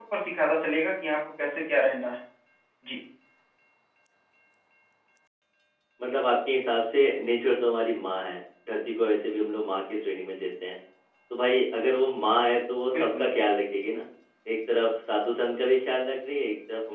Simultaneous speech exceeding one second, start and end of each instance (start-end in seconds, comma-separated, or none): none